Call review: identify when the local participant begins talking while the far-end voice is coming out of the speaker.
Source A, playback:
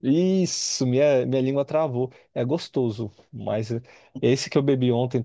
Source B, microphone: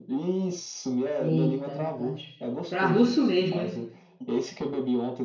1.2 s

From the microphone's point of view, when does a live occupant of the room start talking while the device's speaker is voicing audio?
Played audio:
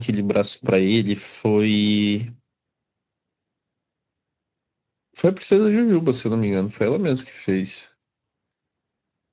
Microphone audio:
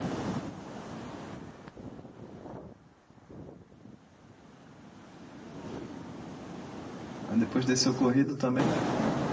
7.2 s

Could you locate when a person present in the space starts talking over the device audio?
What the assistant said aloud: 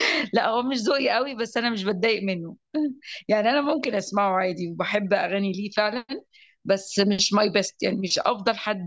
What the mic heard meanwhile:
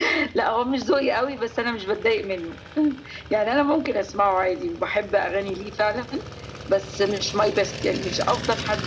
none

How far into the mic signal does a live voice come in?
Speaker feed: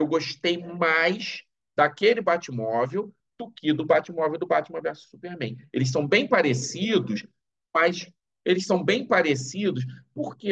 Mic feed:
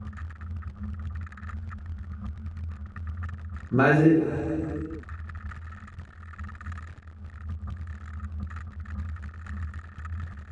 3.7 s

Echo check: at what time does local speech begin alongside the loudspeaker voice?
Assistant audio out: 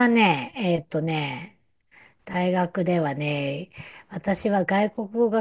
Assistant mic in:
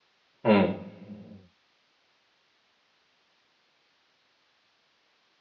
0.4 s

